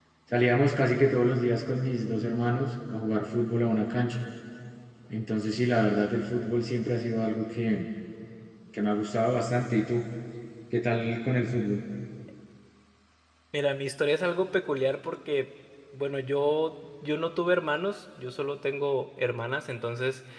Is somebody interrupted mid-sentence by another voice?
No

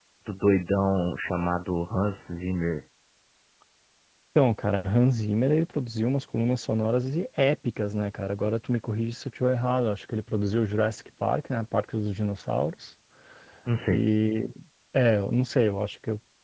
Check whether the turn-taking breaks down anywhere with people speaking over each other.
No

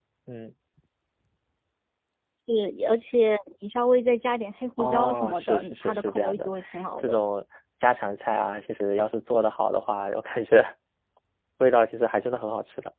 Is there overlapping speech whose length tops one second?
Yes, from 4.8 s

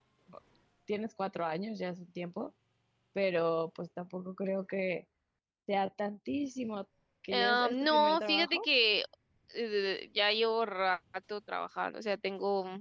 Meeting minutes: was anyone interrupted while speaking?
Yes, from 7.3 s

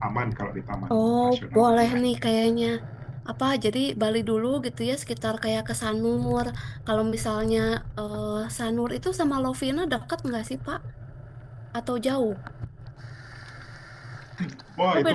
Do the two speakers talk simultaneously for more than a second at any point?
Yes, from 0.9 s

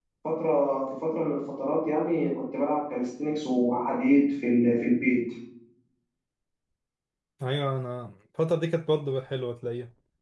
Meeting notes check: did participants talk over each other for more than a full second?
No

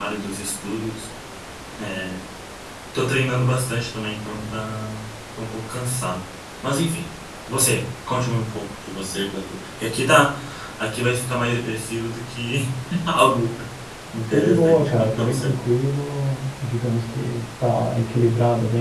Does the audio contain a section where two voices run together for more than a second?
Yes, from 14.3 s

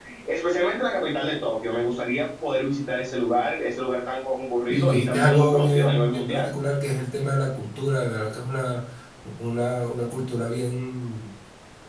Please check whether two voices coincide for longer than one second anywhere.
Yes, from 4.7 s

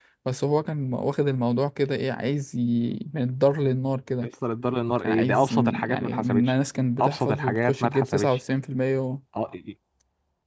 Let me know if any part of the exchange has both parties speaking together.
Yes, from 5.0 s

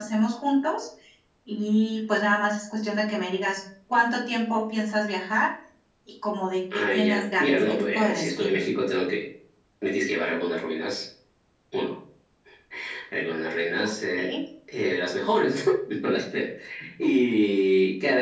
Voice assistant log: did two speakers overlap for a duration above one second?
Yes, from 6.7 s

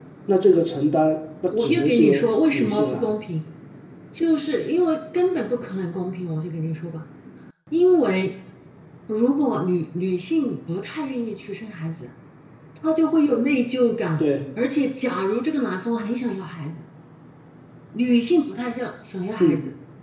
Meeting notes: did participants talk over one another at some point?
Yes, from 1.5 s

